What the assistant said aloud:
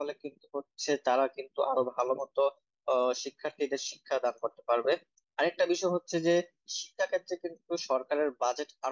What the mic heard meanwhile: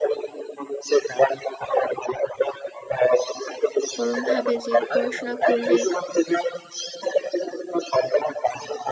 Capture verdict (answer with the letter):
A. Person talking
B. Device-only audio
A